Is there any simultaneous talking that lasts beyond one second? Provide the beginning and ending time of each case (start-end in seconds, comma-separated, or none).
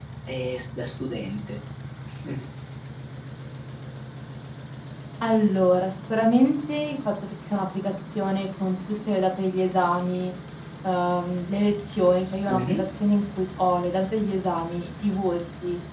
none